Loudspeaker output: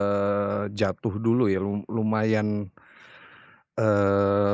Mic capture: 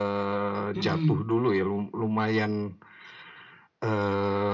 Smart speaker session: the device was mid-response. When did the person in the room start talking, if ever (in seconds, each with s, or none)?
0.7 s